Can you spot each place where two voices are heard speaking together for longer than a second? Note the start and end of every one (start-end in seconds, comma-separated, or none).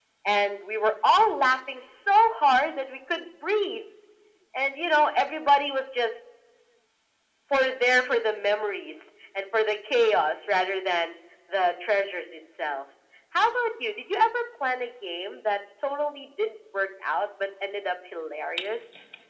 none